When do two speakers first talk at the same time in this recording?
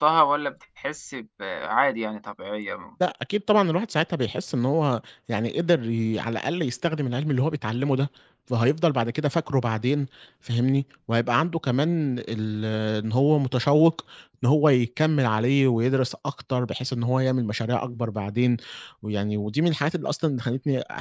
none

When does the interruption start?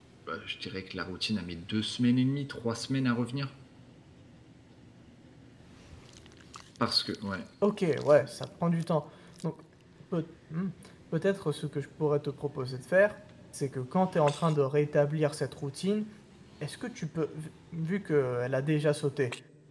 none

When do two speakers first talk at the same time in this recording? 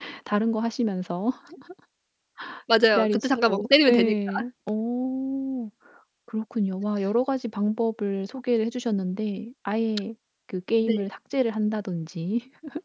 2.9 s

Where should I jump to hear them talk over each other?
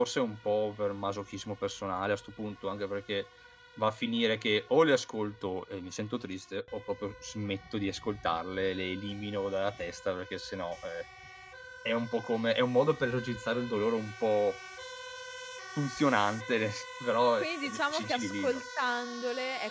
17.4 s

